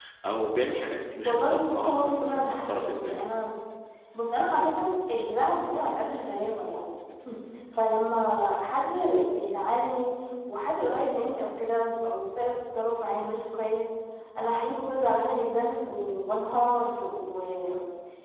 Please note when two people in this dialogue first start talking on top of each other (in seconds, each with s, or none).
1.2 s